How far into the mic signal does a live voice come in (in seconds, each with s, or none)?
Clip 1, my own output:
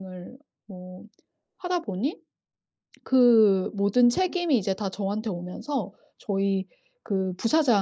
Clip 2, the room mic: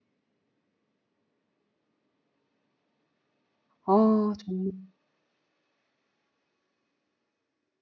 3.8 s